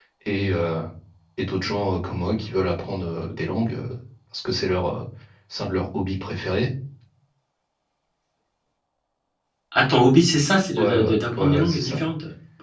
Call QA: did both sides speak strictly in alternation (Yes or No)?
No